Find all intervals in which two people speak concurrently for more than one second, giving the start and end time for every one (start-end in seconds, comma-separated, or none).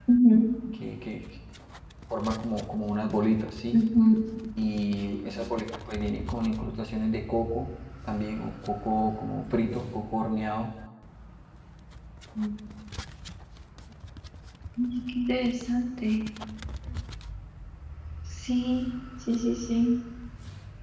none